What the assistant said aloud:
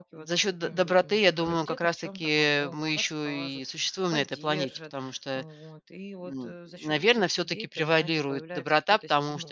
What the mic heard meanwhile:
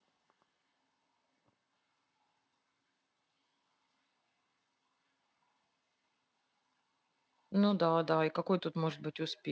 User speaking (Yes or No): Yes